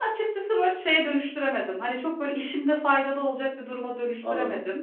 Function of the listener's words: taking over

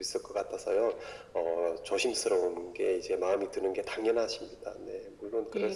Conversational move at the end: taking over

